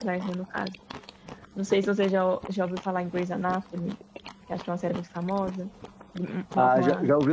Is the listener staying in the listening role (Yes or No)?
No